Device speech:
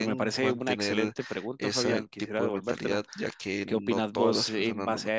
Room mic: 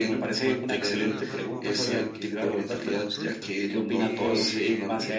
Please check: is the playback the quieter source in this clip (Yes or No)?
No